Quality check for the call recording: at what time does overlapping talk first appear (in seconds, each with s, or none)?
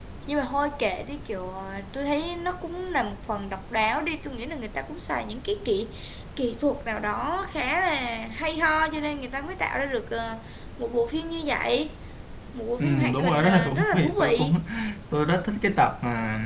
12.8 s